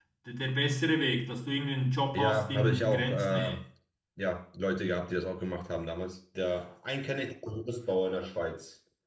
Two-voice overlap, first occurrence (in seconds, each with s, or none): 2.1 s